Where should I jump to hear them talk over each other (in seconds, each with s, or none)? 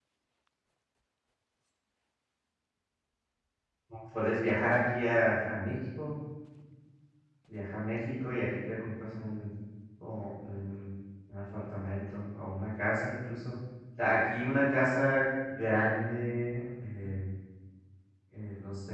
none